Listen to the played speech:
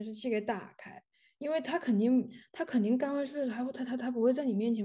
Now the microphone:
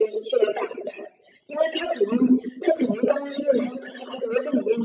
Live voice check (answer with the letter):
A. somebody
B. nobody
B